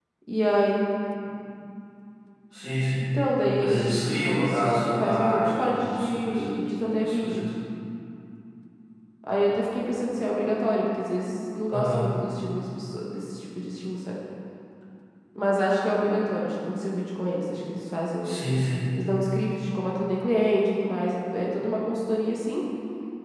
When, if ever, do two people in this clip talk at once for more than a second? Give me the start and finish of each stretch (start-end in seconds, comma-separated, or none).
3.6-6.4